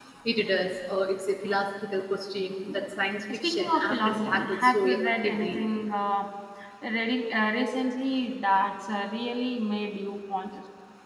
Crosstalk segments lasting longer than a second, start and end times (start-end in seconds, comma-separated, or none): 3.3-5.7